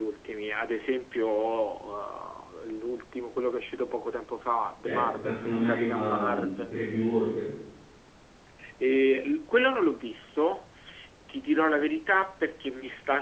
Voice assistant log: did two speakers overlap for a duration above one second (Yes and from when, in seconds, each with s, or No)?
Yes, from 4.8 s